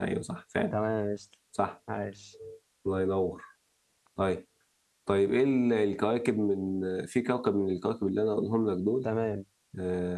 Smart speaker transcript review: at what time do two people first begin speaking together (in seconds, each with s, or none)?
none